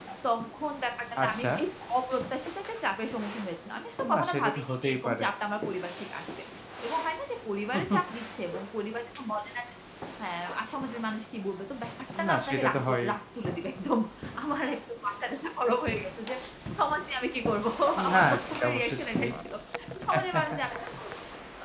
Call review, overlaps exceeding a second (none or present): present